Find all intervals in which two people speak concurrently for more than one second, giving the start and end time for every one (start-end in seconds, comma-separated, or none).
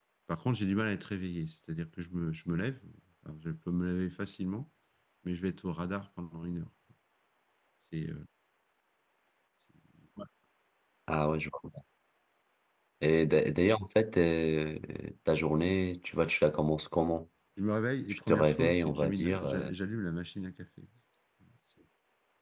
18.1-19.7